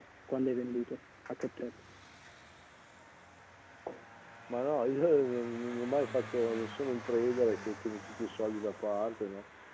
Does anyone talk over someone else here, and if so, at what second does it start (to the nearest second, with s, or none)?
none